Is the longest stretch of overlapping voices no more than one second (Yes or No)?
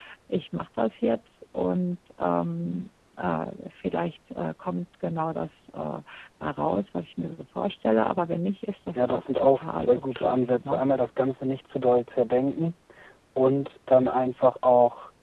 No